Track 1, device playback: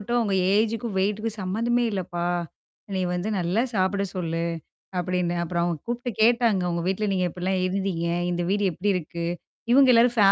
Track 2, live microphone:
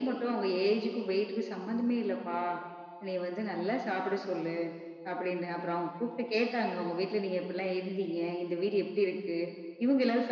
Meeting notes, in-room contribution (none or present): none